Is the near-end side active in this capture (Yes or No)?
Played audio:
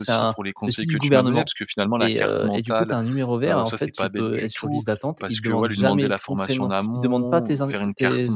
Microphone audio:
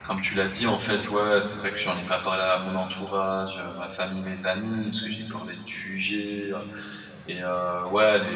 Yes